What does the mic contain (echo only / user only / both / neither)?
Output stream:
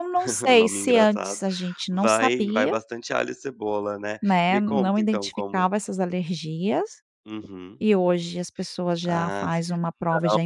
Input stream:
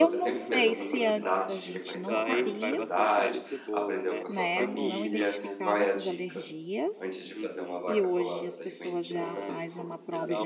both